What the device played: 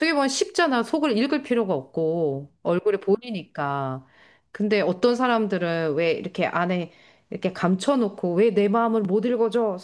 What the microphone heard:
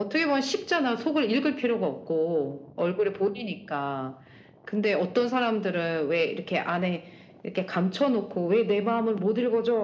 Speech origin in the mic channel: echo only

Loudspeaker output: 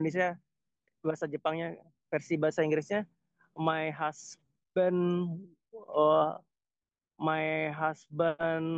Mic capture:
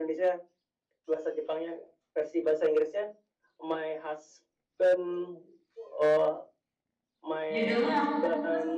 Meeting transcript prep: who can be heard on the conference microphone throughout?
both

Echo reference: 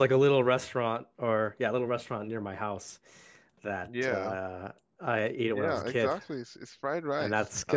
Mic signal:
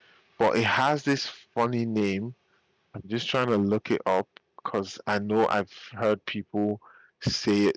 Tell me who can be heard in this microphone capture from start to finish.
user only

